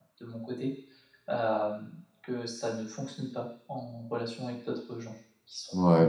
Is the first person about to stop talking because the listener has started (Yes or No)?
Yes